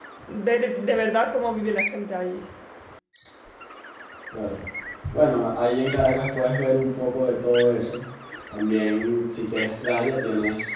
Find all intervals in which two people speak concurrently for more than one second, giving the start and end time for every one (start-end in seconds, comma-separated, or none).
none